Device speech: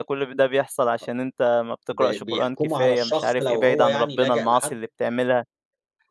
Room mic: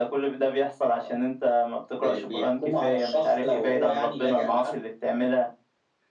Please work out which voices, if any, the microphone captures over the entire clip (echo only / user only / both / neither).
echo only